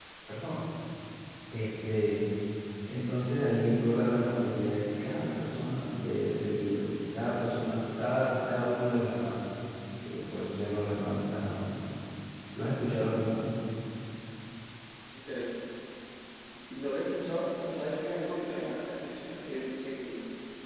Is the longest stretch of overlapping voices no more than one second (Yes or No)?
Yes